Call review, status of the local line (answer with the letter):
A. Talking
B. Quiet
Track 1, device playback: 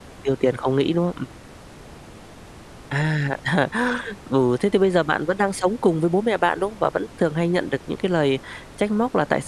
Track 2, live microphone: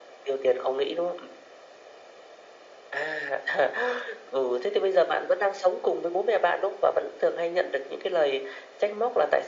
B